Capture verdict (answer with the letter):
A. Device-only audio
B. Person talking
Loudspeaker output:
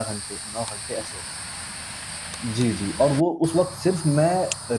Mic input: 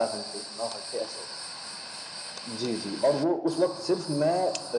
A